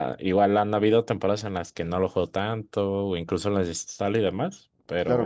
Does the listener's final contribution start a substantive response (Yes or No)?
Yes